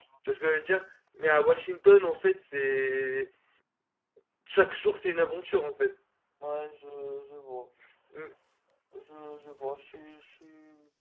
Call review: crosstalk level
none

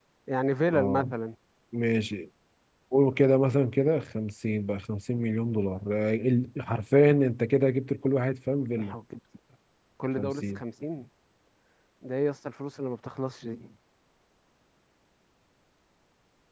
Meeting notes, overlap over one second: none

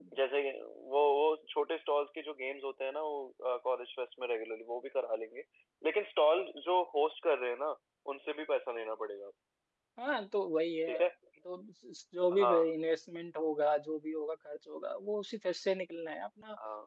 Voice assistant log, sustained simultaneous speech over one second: none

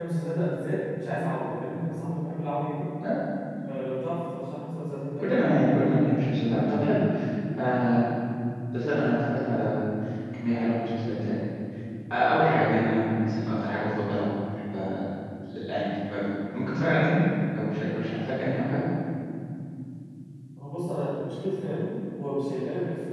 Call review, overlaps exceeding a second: none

